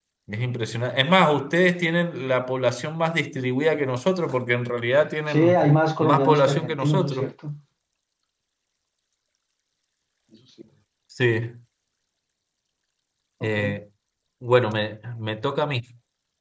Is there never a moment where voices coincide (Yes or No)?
No